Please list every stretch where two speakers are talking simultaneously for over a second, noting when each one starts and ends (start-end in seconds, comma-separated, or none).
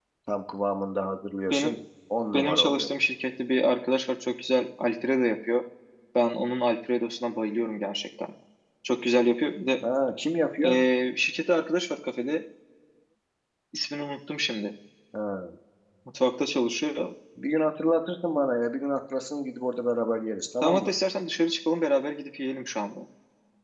none